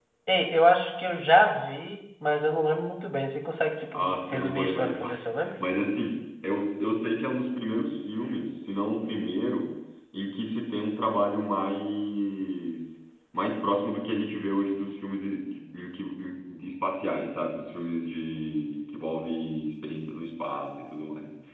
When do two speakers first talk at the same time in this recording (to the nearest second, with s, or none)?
4 s